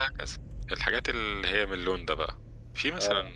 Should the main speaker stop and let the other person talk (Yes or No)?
No